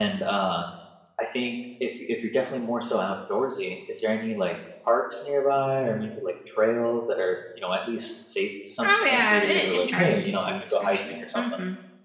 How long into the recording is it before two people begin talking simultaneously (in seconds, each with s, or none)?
8.8 s